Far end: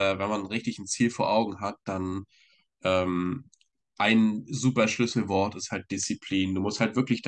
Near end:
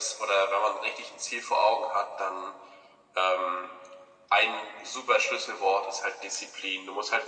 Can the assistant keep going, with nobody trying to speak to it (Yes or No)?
Yes